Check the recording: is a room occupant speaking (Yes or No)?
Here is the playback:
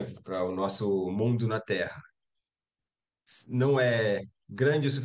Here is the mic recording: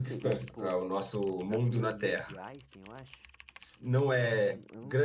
Yes